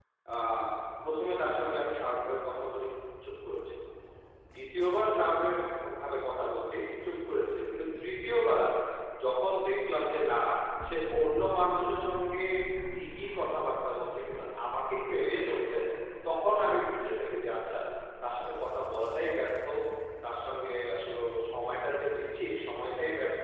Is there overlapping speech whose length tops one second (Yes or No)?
No